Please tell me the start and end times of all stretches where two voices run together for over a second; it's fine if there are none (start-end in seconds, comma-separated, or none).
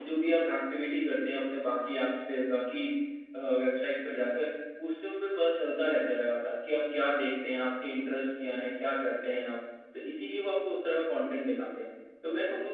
none